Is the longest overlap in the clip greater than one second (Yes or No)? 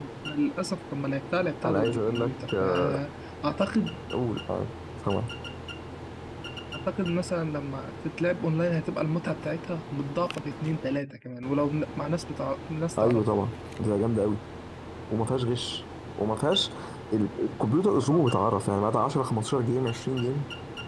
Yes